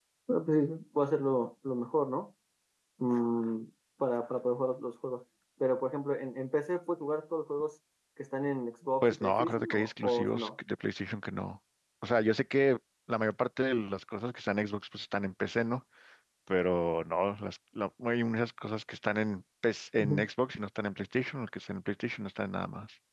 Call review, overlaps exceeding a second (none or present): present